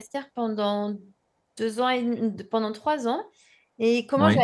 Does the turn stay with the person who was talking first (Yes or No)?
Yes